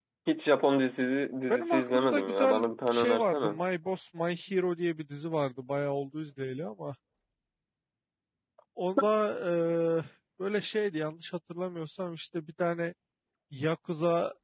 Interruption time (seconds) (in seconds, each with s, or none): 1.5 s